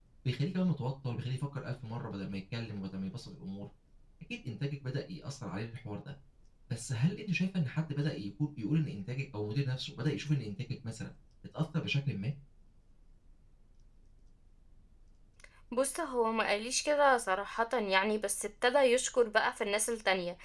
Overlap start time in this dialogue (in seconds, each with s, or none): none